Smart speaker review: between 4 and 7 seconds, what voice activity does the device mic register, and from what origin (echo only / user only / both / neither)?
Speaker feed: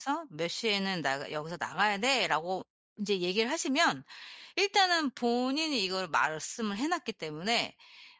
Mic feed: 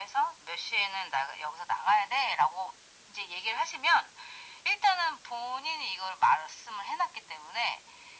echo only